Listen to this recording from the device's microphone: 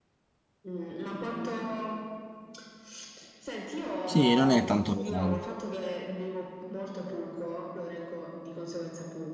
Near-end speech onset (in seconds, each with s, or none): 4.0 s